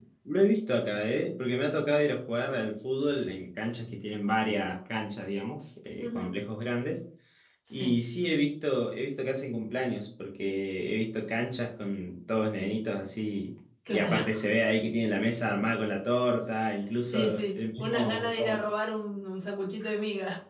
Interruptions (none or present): present